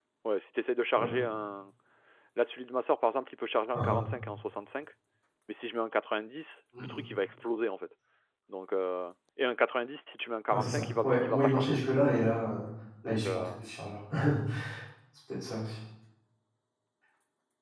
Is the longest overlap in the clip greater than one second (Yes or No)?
Yes